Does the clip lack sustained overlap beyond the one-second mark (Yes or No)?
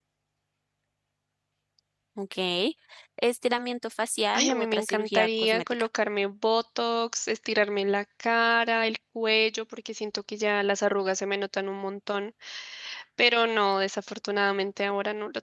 No